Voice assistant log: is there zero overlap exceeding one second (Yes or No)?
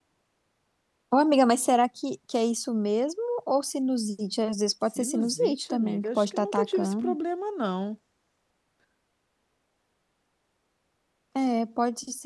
No